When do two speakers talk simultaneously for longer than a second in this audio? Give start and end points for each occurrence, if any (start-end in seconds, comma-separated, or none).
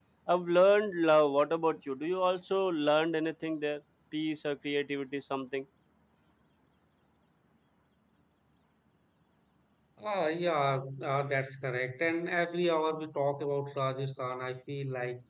none